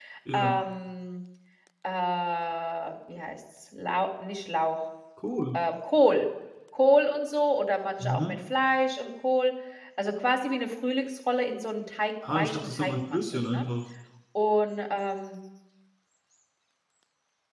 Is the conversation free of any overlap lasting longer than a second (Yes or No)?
No